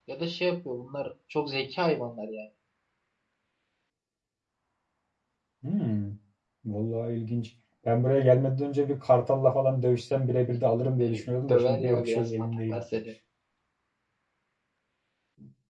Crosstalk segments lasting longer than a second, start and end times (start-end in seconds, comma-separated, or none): 11.0-12.8